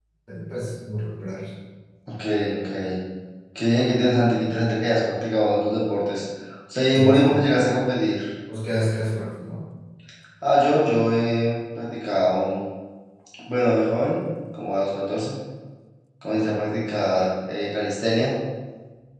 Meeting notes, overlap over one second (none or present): none